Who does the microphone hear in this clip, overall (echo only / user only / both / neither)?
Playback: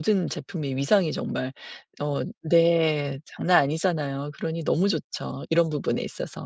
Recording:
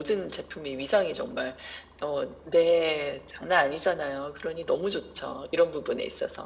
echo only